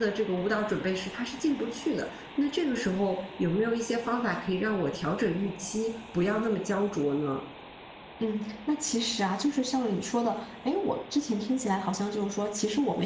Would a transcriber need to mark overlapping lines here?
No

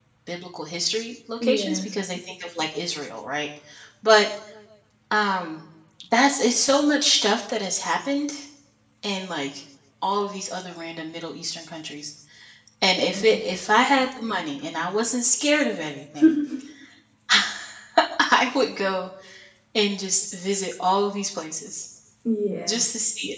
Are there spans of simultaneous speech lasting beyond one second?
No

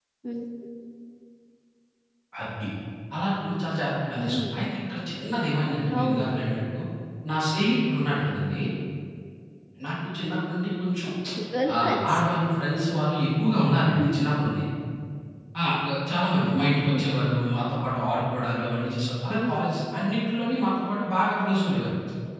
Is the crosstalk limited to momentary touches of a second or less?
Yes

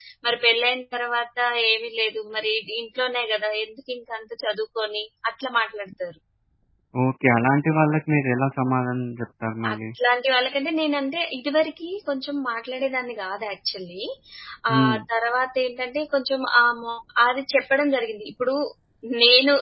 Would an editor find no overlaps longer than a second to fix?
Yes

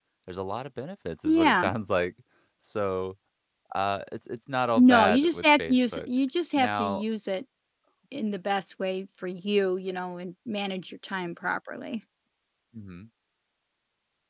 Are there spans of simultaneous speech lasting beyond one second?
Yes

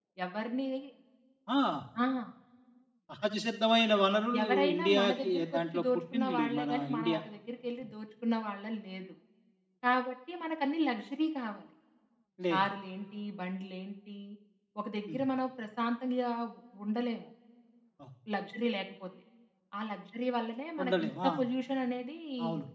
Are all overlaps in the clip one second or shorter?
No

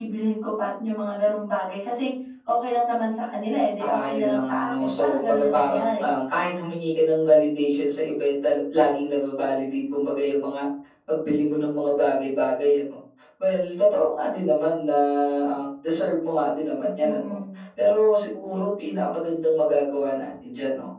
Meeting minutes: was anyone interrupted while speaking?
Yes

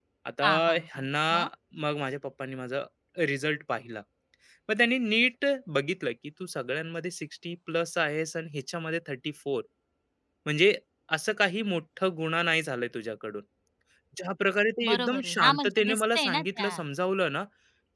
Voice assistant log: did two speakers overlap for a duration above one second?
Yes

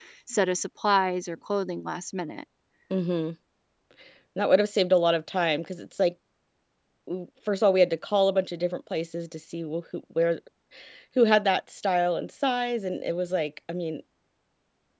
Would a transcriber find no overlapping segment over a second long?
Yes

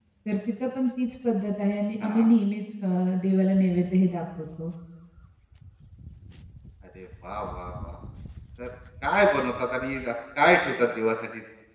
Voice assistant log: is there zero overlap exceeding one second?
Yes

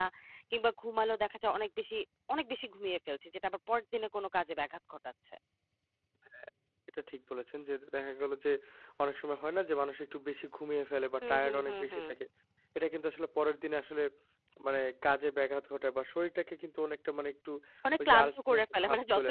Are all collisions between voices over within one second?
No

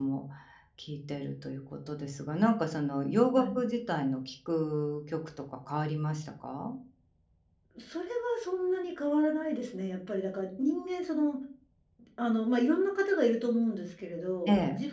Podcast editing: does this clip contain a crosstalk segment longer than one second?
No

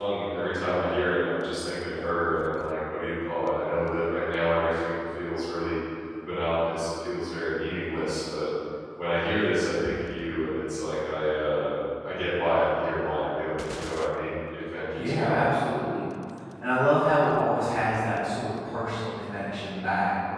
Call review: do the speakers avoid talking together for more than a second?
Yes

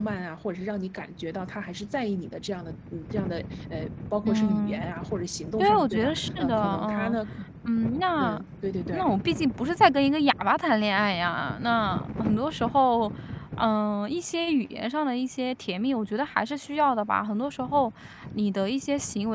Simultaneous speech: Yes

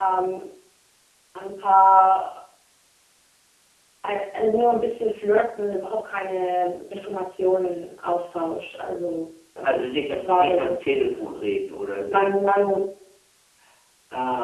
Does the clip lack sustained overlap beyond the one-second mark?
No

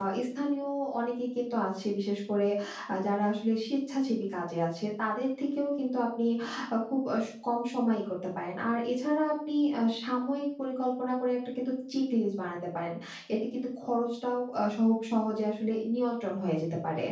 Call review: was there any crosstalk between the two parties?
No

